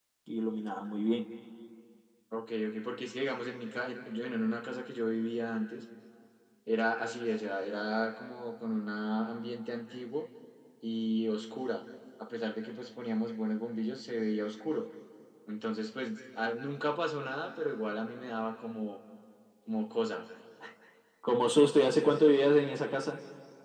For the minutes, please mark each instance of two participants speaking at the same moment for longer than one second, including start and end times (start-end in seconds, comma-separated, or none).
none